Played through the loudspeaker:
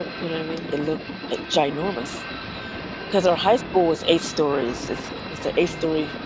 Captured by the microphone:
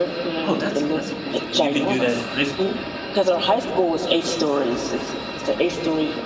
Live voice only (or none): Oh, that's that's amazing, and you could do that in high school?